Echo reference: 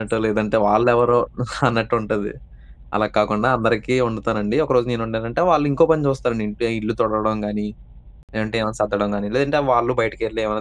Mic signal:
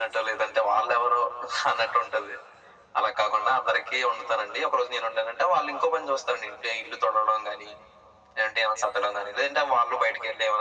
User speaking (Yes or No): No